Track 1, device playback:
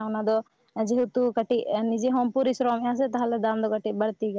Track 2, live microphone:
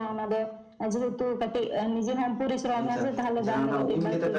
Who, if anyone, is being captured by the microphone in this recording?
both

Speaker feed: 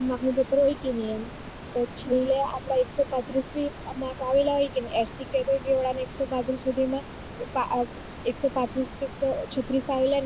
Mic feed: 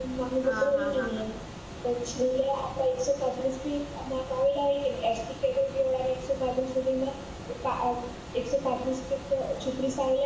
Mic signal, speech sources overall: both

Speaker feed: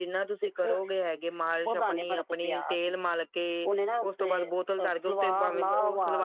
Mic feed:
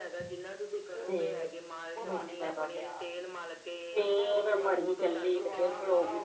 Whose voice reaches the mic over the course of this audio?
both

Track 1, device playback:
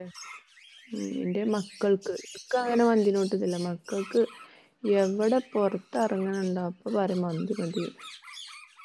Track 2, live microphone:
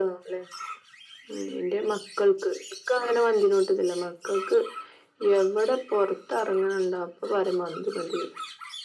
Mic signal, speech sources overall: echo only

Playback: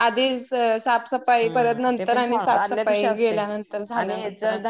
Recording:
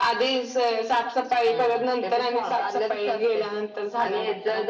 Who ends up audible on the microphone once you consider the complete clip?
echo only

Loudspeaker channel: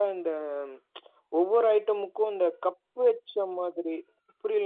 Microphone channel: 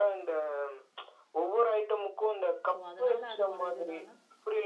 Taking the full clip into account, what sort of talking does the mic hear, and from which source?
both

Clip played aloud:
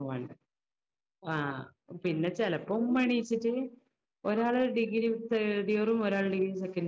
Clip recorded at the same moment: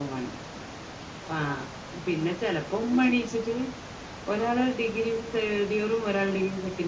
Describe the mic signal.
echo only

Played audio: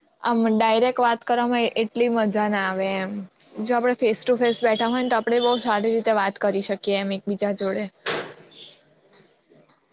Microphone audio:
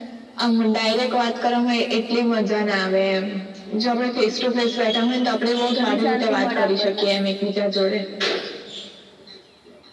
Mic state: both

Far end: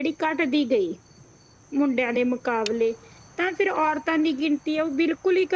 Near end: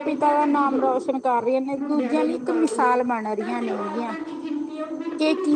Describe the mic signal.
both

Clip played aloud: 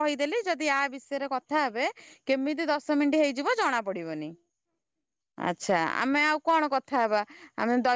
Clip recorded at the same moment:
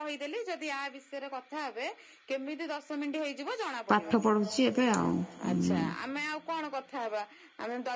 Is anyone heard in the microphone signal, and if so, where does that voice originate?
both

